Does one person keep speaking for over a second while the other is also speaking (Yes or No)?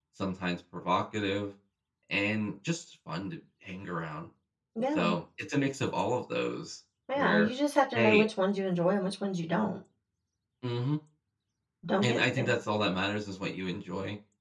No